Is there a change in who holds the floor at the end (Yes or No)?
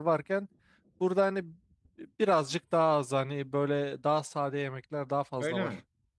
Yes